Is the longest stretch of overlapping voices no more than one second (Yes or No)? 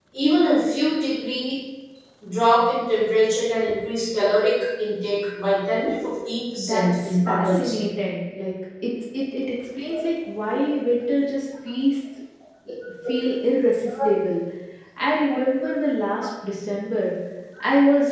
No